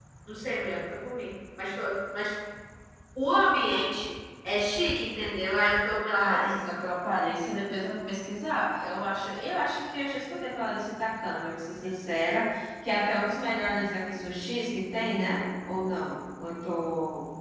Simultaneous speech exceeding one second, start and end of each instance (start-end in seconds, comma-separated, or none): none